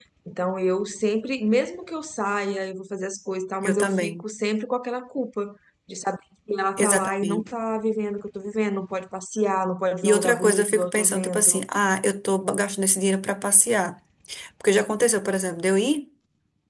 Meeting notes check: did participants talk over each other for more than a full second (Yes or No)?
Yes